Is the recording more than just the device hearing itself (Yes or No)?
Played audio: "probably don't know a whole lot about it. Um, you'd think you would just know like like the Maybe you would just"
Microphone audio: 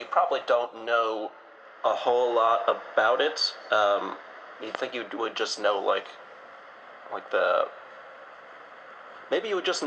No